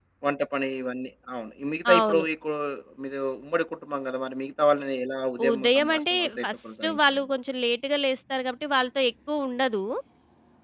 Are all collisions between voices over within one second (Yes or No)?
No